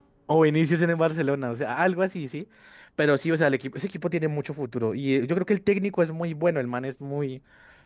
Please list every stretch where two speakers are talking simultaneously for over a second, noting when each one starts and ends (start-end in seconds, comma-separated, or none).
none